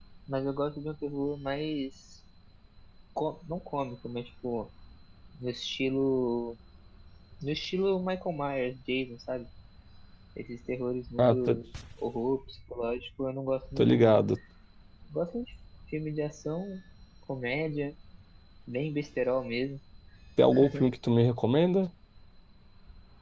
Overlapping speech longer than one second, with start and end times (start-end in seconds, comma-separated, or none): none